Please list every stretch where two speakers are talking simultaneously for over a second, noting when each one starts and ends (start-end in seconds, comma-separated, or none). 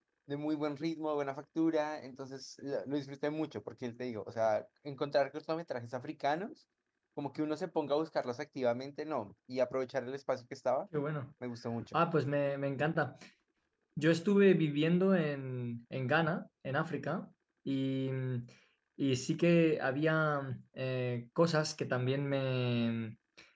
none